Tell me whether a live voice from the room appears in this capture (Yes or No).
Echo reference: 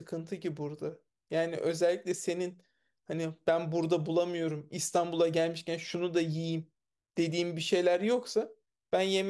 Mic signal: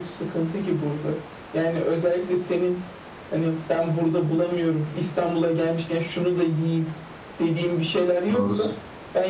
Yes